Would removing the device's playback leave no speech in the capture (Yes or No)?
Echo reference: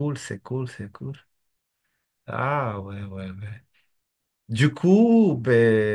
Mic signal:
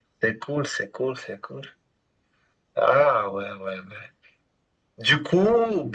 Yes